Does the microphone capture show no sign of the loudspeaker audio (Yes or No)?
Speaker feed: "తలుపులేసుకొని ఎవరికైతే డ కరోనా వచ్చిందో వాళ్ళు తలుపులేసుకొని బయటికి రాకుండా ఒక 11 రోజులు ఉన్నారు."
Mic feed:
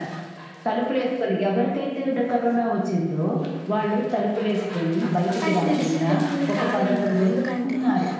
No